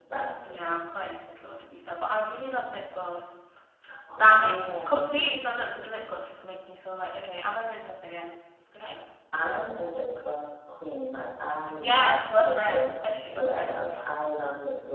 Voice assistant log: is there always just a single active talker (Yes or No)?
No